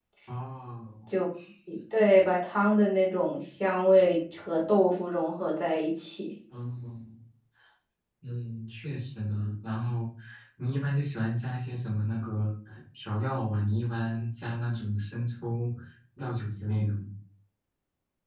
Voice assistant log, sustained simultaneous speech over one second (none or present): none